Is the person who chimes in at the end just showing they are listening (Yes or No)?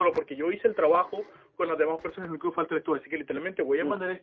Yes